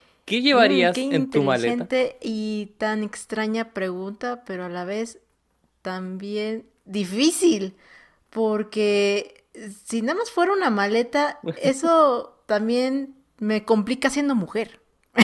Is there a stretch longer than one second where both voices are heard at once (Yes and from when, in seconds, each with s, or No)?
Yes, from 0.5 s